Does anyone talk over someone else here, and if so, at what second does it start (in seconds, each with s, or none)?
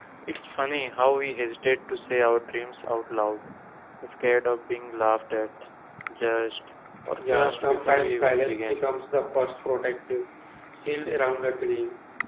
7.2 s